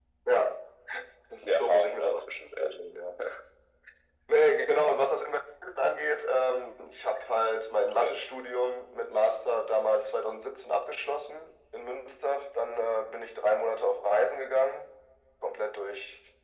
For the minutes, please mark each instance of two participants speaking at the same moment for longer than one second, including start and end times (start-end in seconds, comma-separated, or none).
1.5-2.7